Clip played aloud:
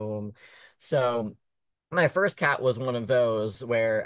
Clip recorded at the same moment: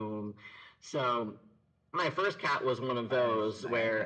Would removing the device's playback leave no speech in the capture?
No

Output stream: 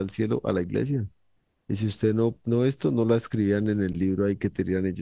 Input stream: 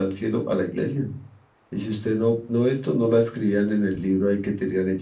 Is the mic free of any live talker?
Yes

